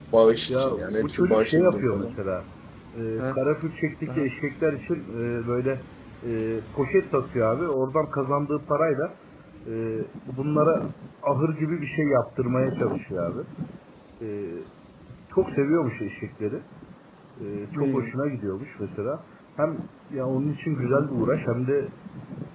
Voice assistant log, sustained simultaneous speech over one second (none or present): present